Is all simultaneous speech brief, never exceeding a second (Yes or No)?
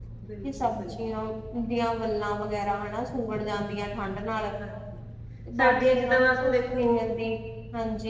No